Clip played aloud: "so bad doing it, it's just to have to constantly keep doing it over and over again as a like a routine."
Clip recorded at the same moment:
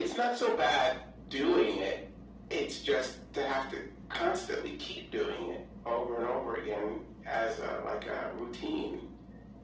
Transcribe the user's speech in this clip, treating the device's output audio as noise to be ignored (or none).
none